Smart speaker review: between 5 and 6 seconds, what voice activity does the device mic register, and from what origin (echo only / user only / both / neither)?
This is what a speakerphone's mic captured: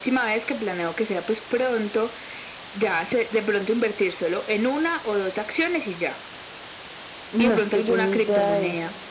echo only